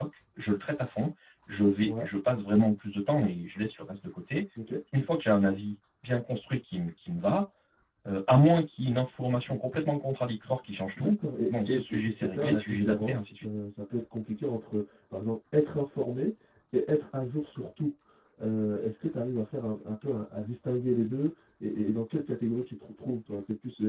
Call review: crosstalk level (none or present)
present